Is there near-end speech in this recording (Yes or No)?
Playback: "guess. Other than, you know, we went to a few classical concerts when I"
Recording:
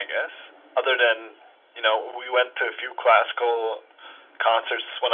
No